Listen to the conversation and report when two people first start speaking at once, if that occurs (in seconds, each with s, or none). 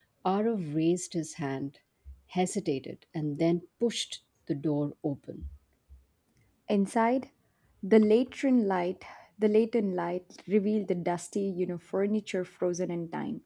none